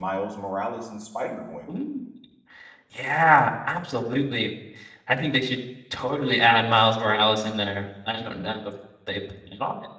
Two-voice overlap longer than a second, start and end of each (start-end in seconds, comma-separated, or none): none